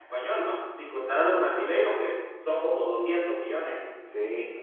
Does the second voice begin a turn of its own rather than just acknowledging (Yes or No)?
Yes